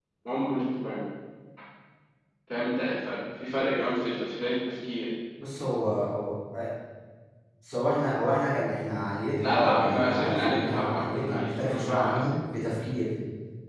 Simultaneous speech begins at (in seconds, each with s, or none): 9.4 s